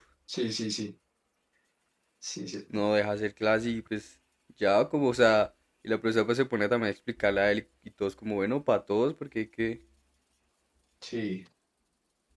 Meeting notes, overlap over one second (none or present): none